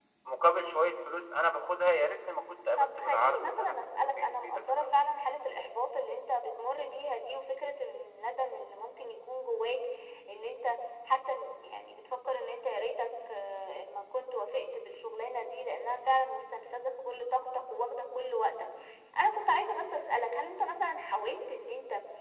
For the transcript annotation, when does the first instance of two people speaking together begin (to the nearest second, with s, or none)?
3 s